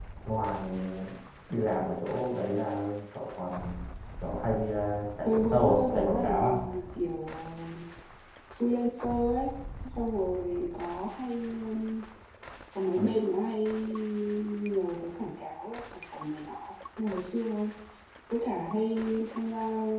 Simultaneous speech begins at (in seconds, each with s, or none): 5.2 s